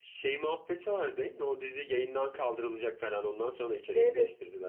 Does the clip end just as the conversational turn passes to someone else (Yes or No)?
Yes